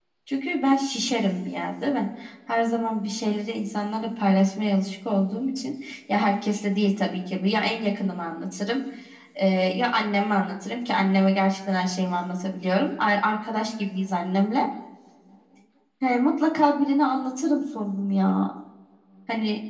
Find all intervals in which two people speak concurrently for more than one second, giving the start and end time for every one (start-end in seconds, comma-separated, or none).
none